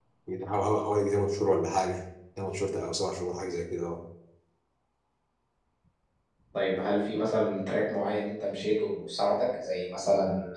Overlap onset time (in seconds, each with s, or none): none